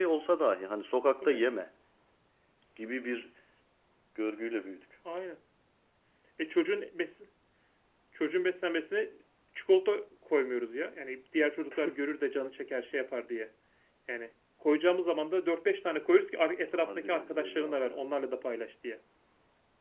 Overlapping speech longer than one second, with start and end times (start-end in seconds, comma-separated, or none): 16.8-18.0